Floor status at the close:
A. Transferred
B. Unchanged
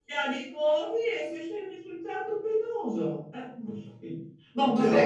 B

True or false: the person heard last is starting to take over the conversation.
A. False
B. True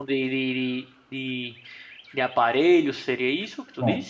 B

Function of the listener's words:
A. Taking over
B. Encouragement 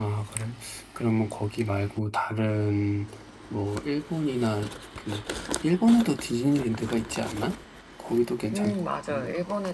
A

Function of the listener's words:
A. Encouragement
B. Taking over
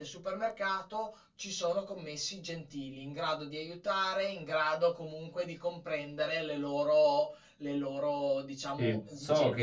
B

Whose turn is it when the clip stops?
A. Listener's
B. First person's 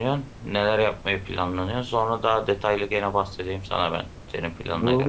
A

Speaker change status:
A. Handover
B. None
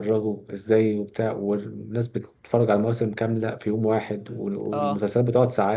B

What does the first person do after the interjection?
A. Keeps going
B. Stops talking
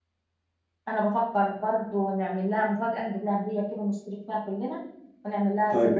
B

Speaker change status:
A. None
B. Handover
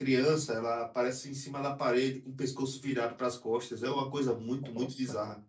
B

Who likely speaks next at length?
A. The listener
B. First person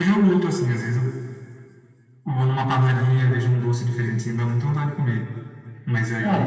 A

